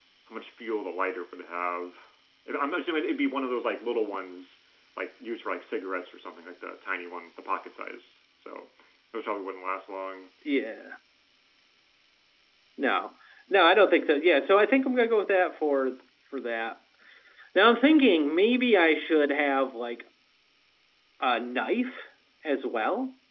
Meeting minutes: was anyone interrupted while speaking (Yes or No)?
No